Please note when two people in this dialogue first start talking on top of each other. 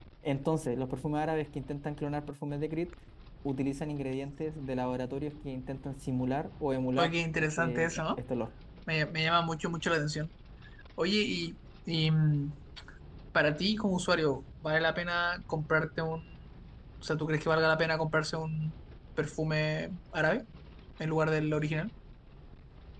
7.0 s

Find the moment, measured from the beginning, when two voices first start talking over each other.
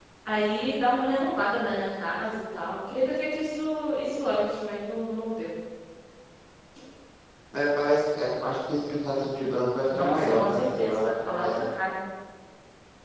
9.9 s

